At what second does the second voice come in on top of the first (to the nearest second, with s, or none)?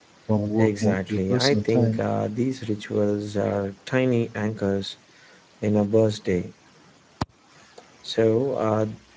1 s